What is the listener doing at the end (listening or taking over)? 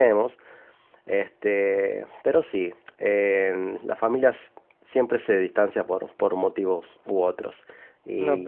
taking over